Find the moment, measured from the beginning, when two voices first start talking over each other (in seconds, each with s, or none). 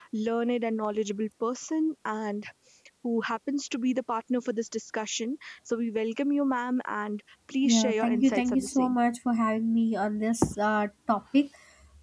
7.6 s